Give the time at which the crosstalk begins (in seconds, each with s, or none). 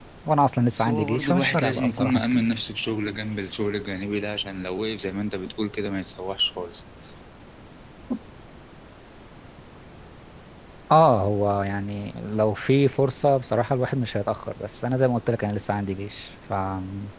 0.8 s